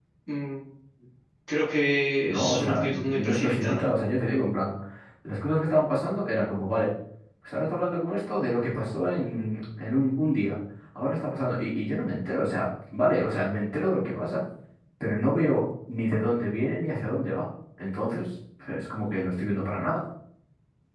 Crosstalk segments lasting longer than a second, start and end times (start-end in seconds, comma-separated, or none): 2.2-3.9